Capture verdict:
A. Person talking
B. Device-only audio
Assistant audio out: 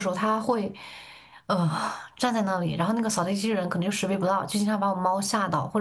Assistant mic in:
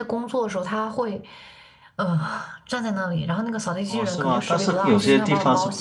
A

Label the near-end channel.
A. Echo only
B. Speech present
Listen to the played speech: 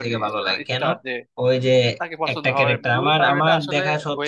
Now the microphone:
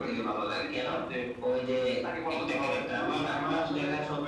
A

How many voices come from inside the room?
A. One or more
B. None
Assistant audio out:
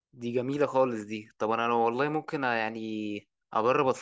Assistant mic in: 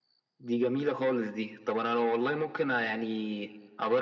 B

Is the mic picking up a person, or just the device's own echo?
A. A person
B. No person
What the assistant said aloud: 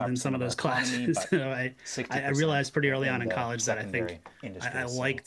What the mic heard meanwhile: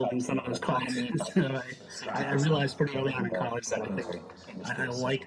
A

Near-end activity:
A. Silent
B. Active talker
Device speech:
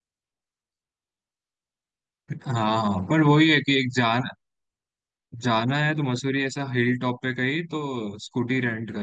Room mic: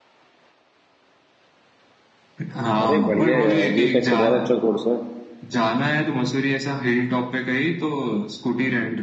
B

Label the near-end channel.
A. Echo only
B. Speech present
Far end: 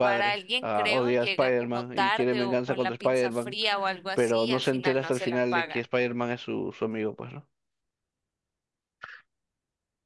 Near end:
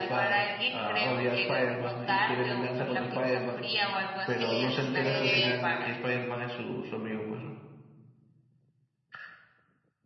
B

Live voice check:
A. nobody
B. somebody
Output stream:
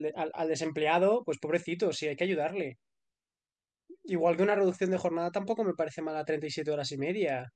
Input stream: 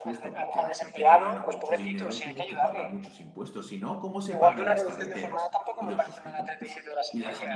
B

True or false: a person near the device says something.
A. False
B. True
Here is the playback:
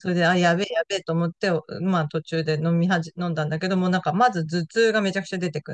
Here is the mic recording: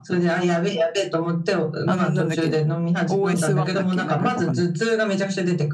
B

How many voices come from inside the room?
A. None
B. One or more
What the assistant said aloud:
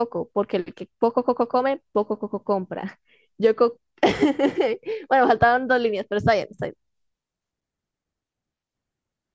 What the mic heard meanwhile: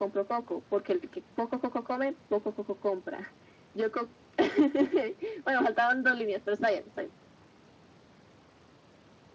A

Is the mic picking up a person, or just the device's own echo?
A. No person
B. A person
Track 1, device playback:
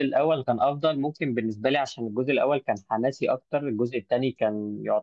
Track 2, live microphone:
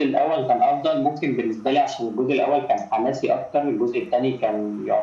A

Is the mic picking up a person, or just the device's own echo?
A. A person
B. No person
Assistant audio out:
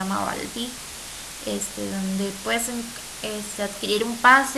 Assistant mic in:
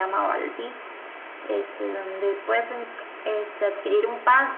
B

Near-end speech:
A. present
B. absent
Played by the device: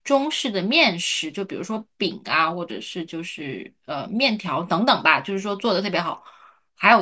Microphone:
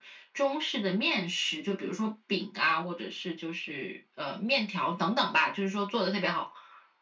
B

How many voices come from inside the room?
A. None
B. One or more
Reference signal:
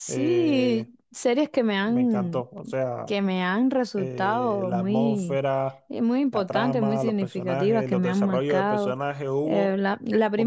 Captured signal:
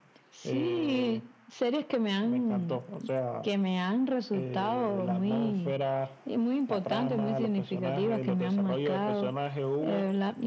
A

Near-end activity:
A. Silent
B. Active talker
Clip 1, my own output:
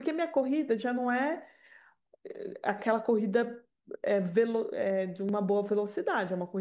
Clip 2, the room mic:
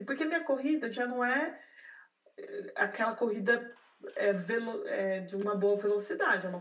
A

